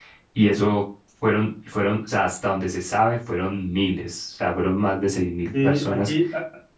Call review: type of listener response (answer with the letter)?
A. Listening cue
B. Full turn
B